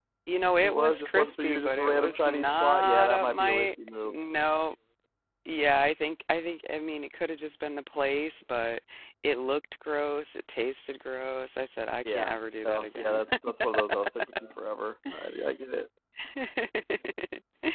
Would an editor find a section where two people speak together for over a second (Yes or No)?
Yes